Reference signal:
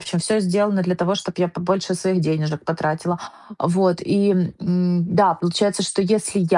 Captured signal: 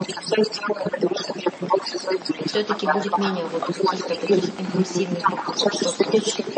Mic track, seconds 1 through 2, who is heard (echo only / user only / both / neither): echo only